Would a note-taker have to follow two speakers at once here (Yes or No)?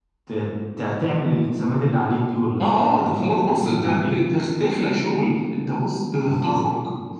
Yes